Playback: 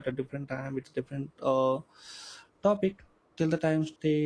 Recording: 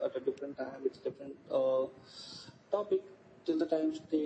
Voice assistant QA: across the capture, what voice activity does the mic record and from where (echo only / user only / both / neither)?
echo only